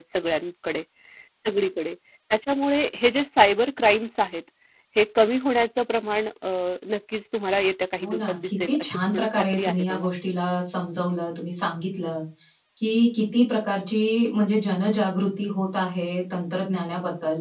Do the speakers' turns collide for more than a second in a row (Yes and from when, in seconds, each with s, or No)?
Yes, from 8.0 s